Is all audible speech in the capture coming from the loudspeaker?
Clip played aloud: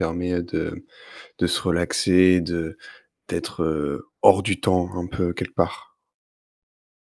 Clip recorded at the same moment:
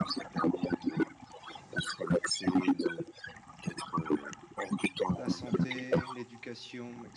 No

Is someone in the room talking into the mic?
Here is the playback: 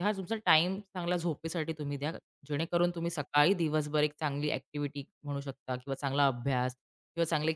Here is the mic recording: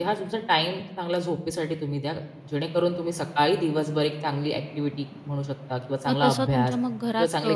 Yes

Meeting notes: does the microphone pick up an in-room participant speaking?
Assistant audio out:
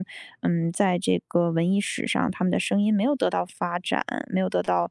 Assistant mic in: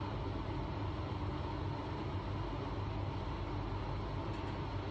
No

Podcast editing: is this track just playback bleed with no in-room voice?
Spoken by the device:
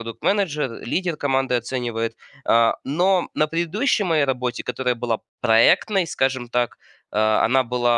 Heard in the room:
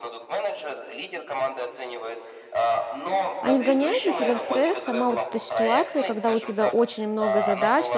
No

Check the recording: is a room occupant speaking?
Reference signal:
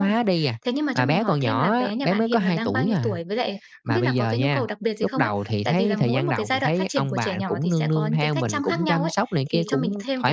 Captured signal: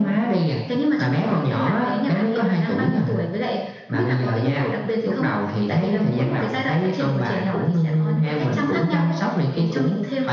Yes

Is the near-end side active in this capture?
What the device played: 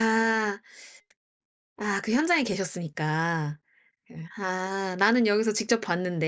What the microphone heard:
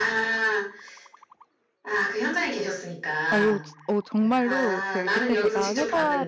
Yes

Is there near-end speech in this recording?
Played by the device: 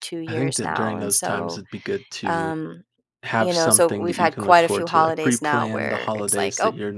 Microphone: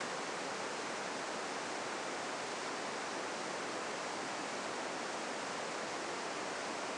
No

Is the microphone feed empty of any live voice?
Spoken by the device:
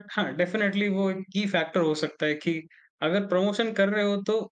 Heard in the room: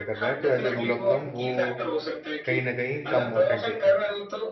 No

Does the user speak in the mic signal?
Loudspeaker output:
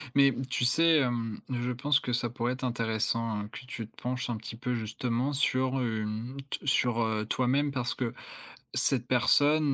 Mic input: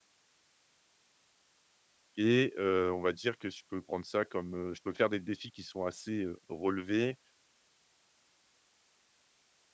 Yes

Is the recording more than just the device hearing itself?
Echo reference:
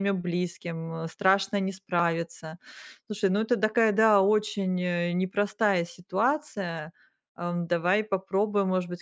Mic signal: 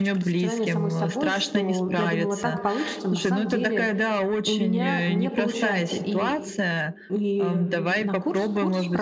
Yes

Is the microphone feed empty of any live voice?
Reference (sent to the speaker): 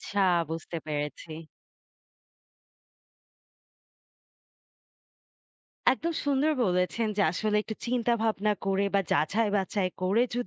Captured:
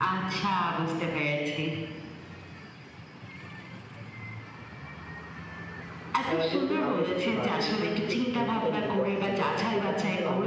No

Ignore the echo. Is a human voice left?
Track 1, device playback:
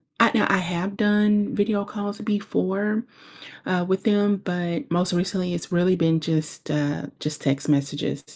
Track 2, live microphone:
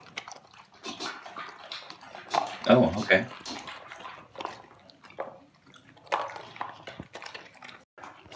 Yes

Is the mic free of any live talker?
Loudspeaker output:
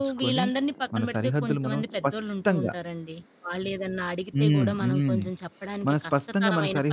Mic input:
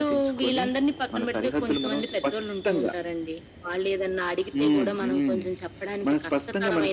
Yes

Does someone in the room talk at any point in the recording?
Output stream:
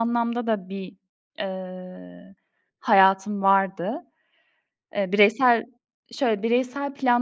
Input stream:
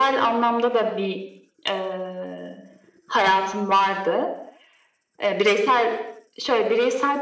No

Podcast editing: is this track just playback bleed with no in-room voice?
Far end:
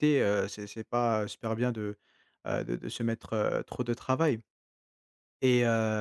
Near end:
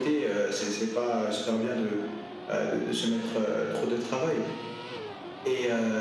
Yes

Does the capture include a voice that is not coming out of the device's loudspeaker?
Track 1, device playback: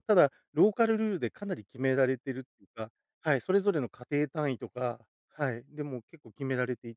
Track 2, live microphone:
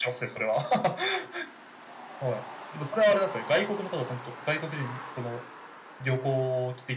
Yes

